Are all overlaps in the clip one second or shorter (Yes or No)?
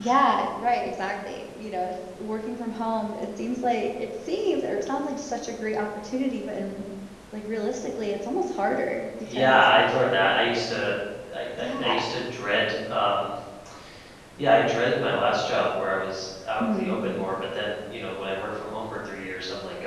Yes